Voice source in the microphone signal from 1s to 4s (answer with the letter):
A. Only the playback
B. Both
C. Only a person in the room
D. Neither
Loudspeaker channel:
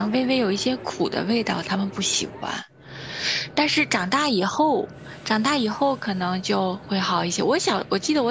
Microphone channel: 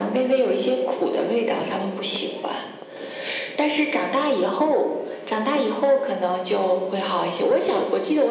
A